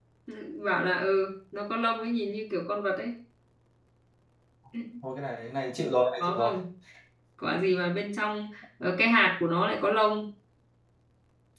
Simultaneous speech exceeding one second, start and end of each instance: none

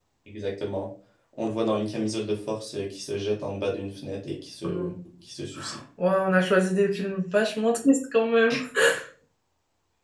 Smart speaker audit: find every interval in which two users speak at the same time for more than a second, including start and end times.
none

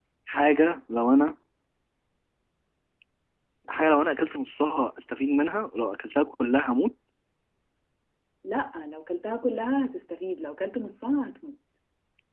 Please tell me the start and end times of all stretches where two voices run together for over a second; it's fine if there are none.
none

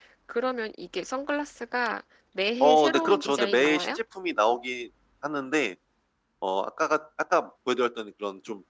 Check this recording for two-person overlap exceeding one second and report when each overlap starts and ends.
2.6-4.0

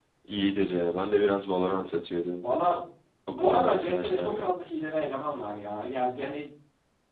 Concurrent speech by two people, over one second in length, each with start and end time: 3.3-4.5

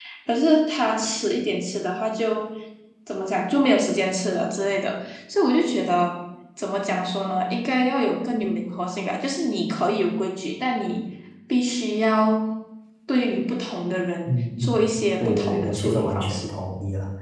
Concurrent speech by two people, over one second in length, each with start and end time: 15.2-16.5

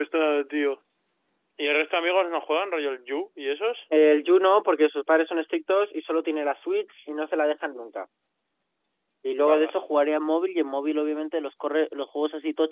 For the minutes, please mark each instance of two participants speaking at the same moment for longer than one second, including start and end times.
none

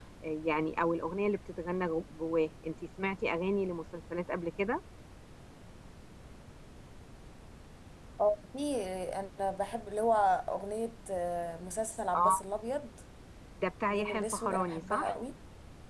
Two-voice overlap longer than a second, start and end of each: 13.9-15.1

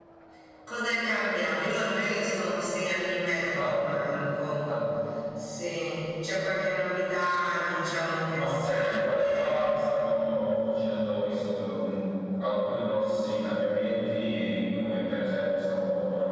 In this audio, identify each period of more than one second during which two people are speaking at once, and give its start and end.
8.3-9.5

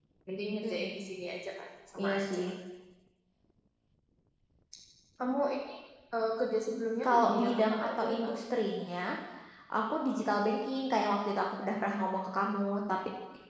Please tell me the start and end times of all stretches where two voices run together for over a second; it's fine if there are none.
7.0-8.4

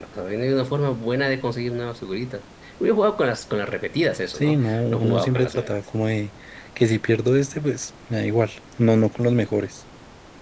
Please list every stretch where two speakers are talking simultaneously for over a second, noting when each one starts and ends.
4.3-5.8

